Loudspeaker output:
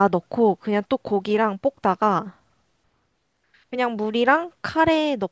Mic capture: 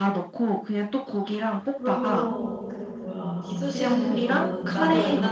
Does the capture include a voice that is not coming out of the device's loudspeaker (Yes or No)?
Yes